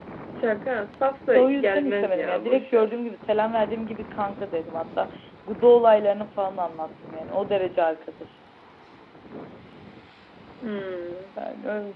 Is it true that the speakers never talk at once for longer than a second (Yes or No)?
No